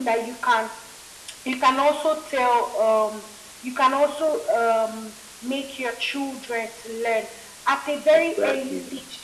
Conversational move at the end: listening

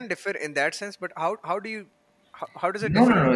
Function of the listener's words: taking over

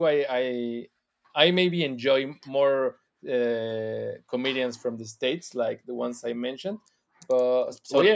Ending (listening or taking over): taking over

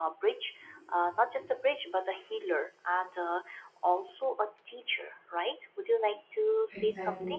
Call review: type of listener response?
listening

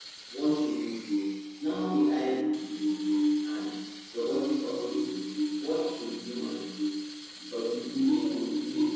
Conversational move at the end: listening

